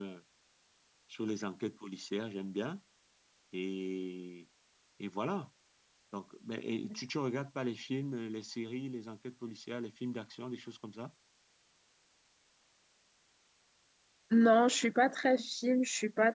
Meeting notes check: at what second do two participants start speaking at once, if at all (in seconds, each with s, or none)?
none